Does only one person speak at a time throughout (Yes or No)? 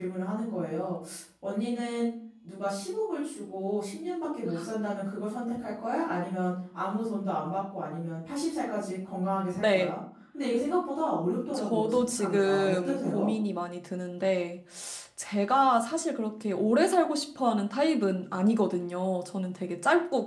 No